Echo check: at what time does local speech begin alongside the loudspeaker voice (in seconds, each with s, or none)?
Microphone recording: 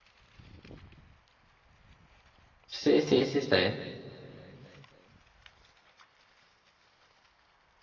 2.7 s